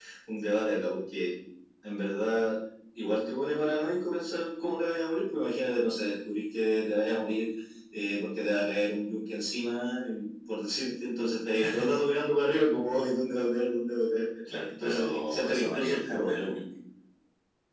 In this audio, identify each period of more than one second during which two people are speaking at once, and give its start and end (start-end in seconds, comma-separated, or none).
14.5-16.6